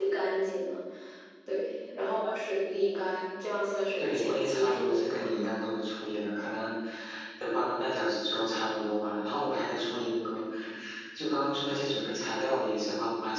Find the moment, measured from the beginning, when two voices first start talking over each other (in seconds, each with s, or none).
4.0 s